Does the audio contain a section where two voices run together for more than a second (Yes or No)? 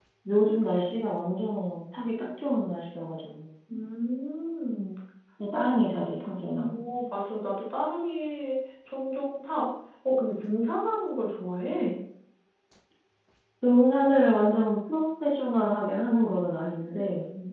No